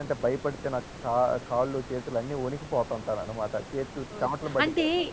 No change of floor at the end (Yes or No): No